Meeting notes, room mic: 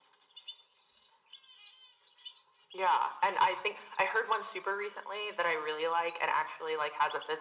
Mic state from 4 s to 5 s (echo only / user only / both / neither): echo only